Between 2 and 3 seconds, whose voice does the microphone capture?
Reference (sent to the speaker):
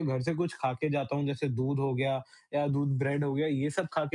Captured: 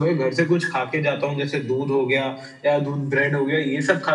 echo only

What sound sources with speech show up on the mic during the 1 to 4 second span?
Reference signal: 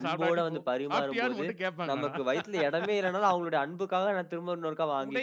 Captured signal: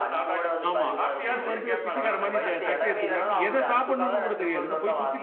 both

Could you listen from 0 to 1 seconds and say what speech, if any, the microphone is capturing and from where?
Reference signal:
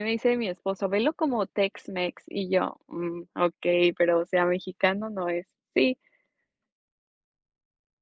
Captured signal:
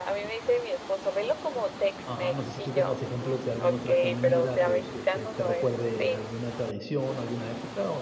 echo only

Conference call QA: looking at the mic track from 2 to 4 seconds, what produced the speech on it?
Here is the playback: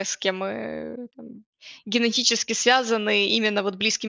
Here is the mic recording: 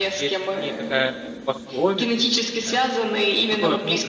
both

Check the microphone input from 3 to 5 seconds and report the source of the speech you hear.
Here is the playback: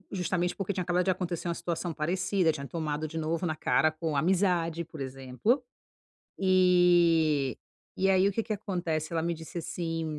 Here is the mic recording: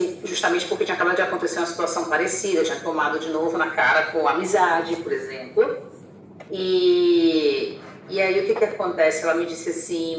echo only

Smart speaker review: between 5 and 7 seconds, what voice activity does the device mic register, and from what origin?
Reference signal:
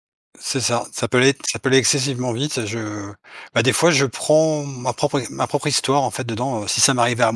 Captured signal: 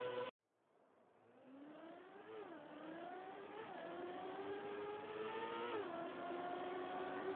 neither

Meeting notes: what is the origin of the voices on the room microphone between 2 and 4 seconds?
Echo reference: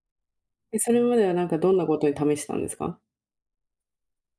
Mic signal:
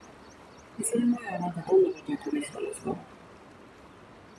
echo only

